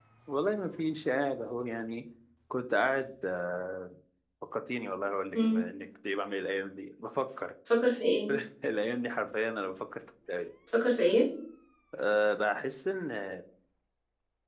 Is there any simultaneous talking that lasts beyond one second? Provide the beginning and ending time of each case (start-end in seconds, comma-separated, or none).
none